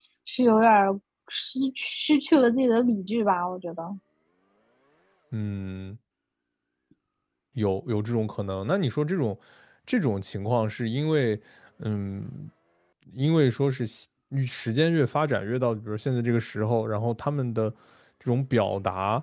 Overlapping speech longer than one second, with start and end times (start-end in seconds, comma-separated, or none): none